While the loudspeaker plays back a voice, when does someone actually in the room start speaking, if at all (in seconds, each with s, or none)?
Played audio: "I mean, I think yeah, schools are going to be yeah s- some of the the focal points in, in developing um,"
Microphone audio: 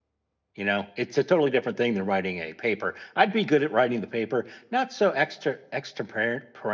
0.6 s